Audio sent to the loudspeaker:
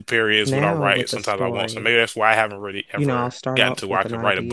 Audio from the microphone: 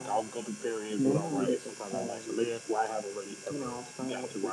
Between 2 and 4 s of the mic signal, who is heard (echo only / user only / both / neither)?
echo only